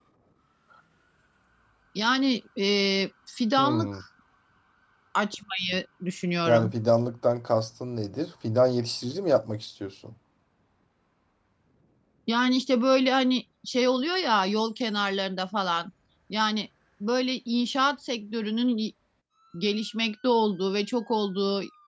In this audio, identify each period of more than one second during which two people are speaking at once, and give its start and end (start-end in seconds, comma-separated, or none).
none